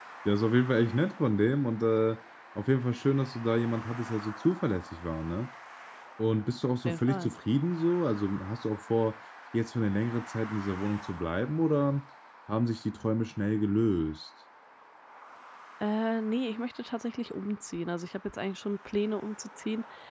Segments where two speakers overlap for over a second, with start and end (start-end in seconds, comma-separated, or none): none